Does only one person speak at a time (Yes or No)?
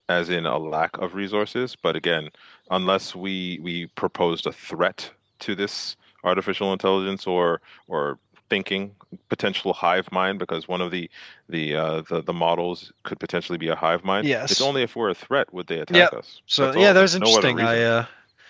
No